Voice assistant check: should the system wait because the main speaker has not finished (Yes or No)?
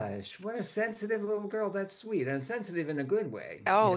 No